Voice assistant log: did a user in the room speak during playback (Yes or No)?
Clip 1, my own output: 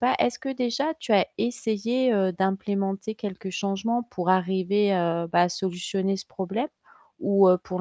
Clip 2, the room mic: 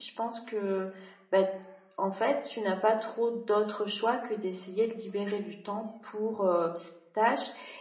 Yes